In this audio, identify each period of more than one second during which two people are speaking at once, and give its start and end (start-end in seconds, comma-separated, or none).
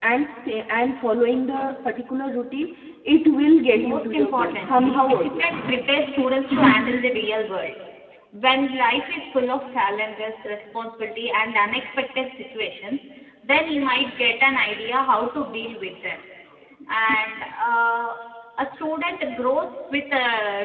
3.7-5.7